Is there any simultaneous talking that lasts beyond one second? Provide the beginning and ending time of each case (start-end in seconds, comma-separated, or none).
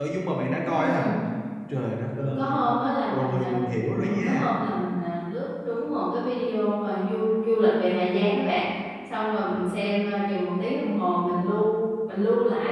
none